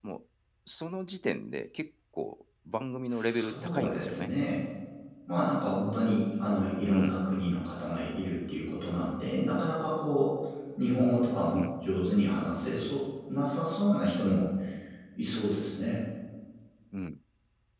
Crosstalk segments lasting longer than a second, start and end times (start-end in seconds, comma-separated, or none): 3.1-4.3